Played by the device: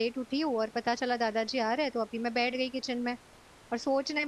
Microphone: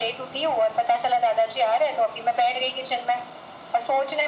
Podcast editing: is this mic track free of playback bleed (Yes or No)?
No